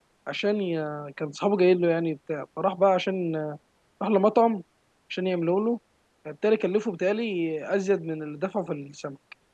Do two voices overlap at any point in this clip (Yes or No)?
No